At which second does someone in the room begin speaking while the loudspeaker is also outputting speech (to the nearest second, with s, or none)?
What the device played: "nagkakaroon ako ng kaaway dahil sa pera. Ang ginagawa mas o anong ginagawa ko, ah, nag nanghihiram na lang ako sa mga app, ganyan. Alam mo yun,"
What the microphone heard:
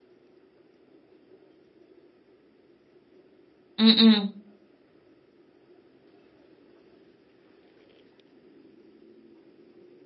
4 s